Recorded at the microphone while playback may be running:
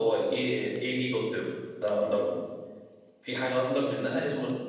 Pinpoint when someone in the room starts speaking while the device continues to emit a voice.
none

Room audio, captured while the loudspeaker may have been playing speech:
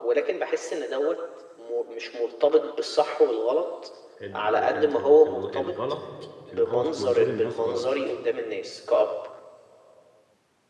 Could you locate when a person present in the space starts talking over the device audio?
4.2 s

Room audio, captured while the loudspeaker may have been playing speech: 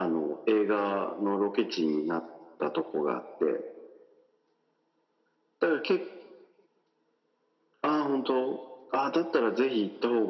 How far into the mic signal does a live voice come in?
none

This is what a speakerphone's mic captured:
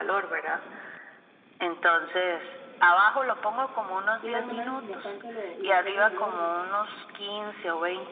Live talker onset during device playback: 4.2 s

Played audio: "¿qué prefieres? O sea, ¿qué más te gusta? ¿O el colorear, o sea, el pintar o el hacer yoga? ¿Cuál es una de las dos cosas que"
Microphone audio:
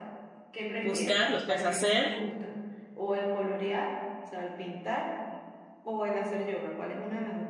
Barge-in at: 0.8 s

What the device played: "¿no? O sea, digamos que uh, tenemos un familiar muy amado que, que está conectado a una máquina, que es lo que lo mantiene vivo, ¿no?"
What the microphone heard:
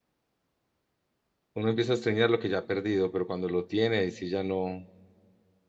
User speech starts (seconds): 1.5 s

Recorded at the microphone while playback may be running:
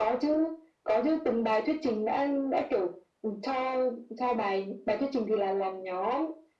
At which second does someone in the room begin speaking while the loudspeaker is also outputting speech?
none

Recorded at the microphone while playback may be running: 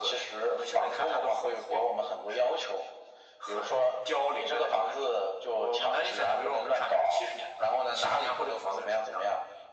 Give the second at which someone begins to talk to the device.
none

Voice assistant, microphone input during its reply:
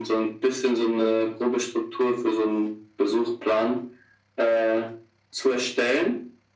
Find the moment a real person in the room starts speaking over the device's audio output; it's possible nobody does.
none

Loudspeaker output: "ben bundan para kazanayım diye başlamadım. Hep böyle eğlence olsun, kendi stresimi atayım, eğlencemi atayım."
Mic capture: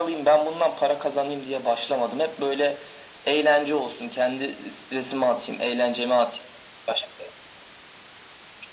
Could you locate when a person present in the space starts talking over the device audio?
none

